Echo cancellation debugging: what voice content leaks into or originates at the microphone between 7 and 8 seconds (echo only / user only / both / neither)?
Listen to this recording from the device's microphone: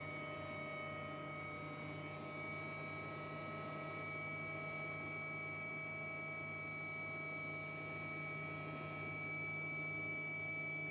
neither